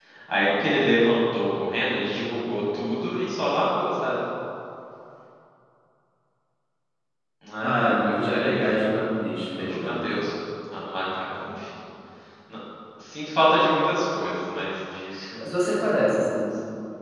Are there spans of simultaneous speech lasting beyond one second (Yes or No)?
Yes